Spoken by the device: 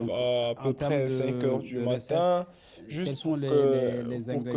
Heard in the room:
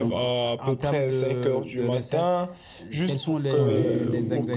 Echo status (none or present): present